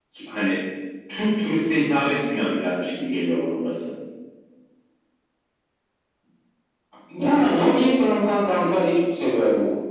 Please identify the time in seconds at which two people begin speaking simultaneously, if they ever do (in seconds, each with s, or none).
none